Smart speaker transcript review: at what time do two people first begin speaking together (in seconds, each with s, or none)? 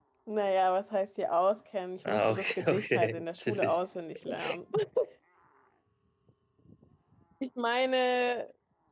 2.0 s